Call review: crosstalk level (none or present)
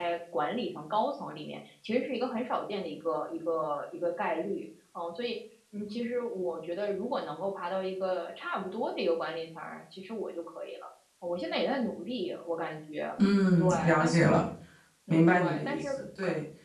present